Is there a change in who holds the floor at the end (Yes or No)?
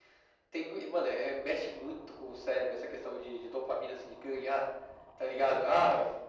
No